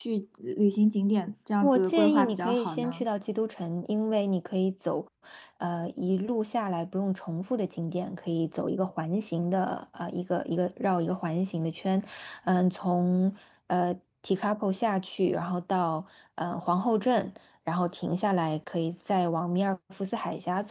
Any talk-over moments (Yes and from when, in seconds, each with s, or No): Yes, from 1.6 s